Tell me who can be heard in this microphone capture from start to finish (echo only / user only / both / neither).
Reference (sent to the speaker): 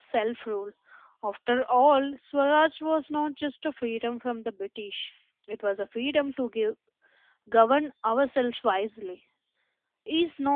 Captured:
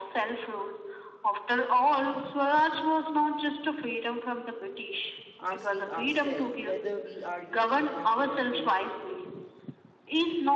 both